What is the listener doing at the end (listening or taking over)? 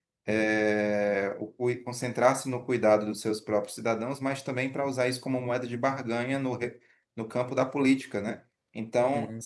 listening